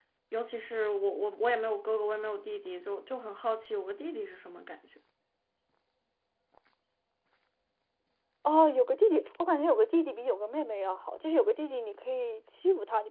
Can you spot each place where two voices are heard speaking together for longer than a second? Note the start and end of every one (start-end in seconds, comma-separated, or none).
none